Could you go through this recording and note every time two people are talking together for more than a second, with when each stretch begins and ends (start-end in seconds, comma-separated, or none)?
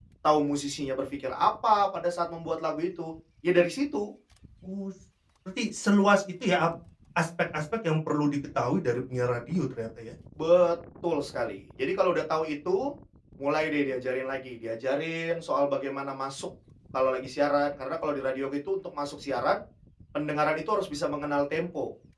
none